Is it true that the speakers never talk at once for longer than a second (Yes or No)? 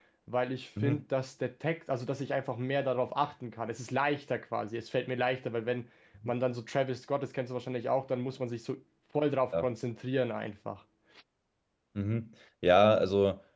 Yes